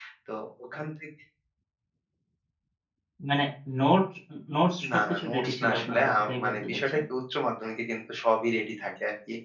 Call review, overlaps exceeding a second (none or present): present